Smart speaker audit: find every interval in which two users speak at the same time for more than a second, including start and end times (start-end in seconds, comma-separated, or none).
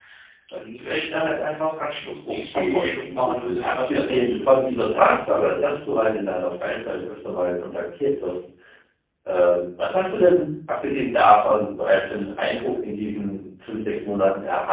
2.2-4.6